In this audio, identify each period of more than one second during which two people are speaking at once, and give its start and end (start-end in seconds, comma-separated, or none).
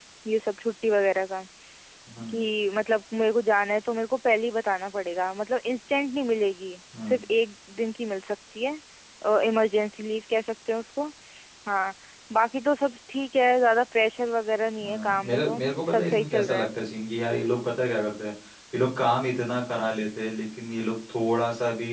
14.8-16.7